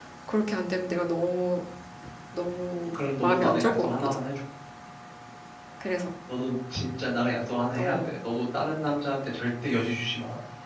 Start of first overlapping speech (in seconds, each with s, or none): 3.0 s